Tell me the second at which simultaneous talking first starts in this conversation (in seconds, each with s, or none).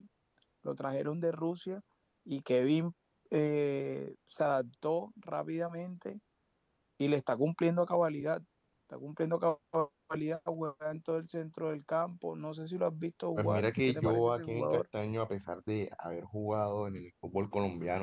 13.3 s